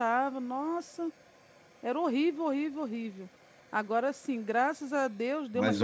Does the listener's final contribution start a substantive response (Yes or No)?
No